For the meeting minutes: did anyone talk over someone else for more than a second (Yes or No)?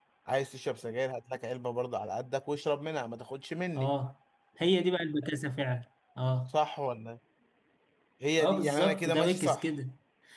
Yes